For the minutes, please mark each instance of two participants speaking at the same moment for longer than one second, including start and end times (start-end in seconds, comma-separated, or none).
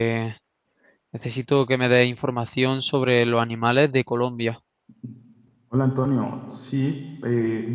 none